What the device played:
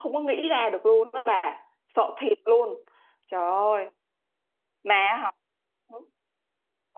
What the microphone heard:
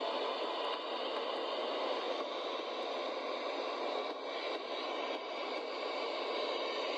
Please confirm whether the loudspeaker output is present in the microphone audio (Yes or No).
No